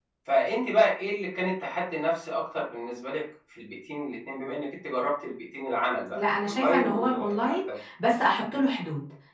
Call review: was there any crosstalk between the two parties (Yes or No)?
Yes